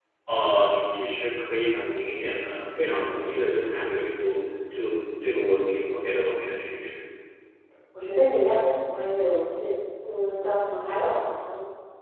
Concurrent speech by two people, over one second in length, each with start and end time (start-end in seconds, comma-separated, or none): none